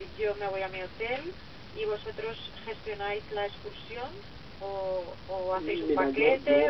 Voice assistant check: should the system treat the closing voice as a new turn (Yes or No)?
Yes